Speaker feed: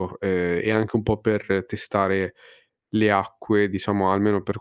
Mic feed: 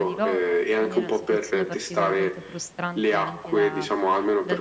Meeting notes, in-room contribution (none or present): present